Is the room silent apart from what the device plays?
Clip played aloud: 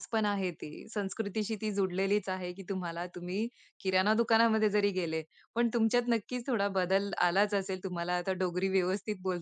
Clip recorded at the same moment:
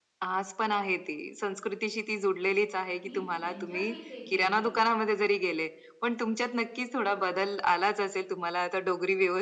No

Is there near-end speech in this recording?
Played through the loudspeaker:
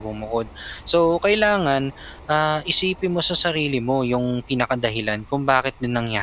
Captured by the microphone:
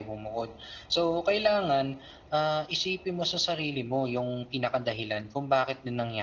No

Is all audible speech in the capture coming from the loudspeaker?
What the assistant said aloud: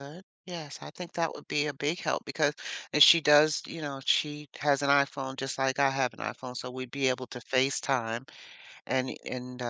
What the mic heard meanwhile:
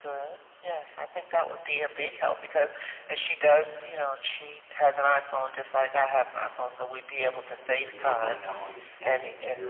No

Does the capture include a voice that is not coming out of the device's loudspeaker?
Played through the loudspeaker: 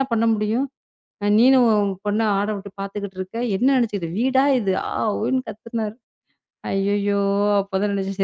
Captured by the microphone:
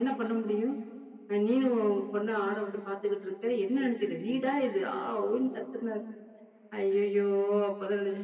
No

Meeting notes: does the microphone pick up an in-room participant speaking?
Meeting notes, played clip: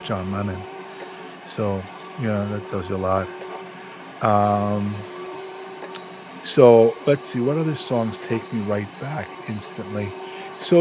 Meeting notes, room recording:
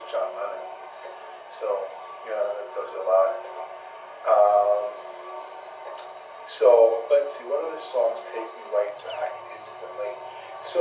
No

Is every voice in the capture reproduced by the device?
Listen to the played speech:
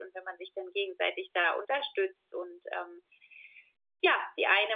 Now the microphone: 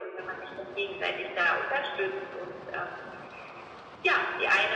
Yes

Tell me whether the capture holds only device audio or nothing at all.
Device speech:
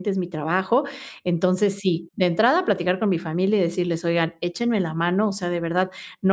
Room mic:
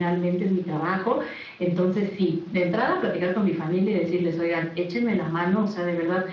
Yes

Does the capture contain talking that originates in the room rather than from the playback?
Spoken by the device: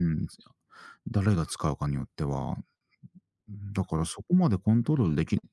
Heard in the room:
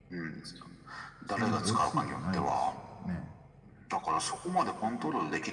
Yes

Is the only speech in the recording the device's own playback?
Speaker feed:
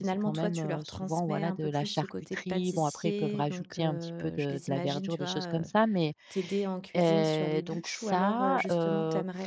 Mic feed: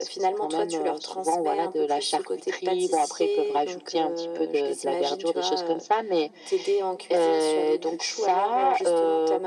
Yes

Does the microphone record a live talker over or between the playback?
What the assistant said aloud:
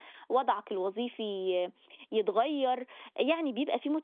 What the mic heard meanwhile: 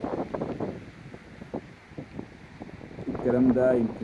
Yes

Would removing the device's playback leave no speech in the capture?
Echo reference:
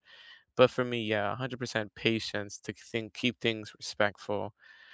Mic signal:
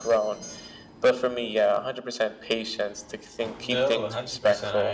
No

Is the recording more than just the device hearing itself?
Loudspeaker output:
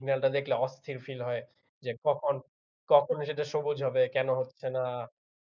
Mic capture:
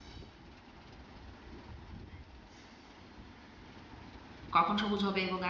Yes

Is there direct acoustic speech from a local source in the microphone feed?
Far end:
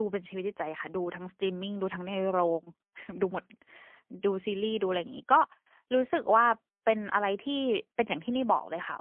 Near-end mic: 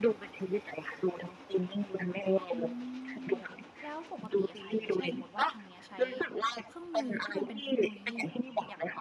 Yes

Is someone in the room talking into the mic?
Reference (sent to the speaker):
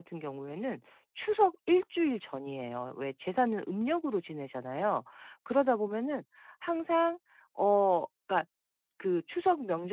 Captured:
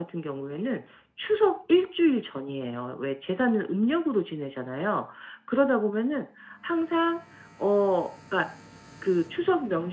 No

